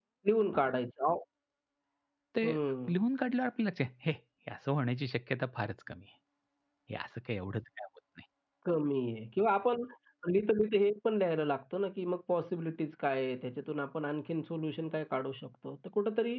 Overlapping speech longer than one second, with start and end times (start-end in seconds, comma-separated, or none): none